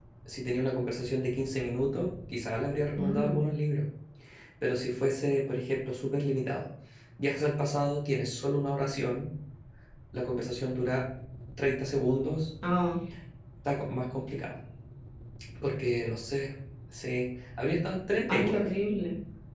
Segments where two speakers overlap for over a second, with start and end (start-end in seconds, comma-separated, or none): none